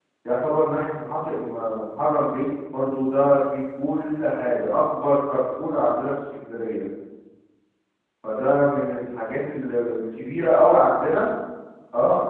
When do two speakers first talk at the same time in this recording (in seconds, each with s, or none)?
none